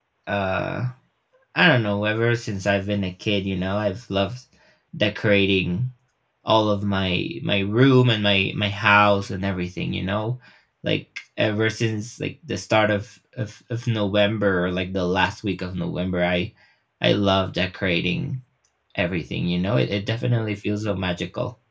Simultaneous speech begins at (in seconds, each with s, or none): none